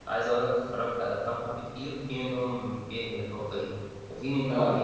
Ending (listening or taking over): listening